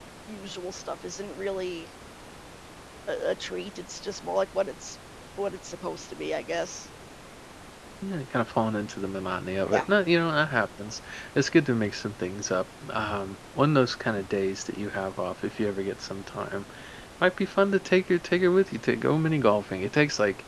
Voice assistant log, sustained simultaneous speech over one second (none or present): none